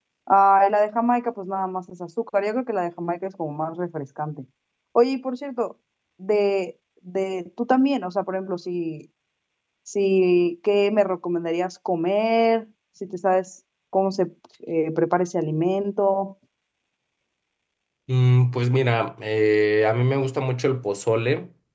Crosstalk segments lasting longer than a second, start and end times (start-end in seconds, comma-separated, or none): none